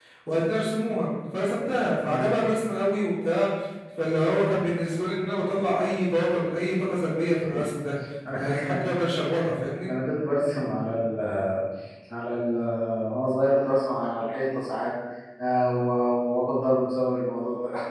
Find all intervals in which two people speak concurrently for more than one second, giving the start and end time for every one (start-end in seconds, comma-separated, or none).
none